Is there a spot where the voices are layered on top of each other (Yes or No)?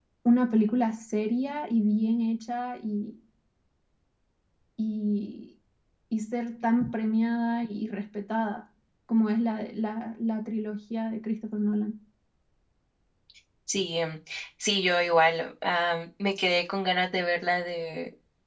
No